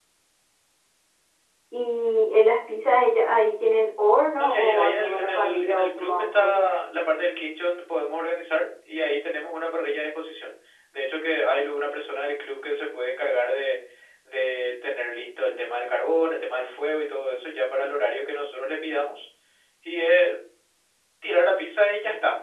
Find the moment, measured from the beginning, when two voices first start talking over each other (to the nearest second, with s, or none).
4 s